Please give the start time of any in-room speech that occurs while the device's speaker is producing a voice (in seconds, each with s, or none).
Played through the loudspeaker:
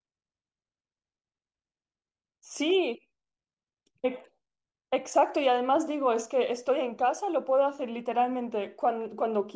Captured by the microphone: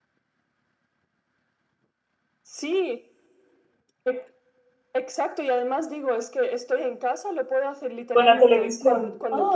8.1 s